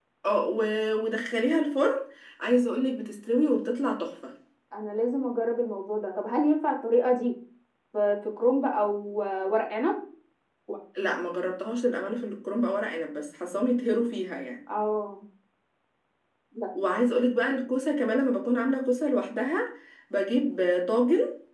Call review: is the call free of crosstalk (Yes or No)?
Yes